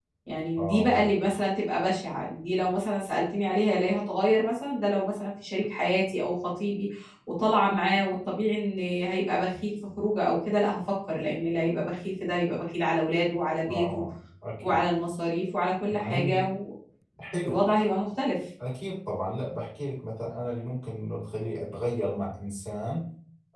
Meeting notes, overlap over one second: none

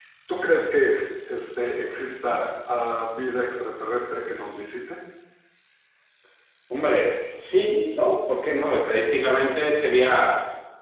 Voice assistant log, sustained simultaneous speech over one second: none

